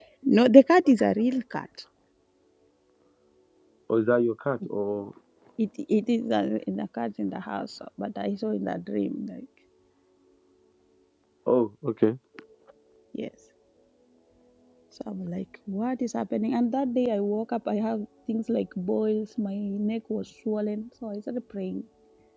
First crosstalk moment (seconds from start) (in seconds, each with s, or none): none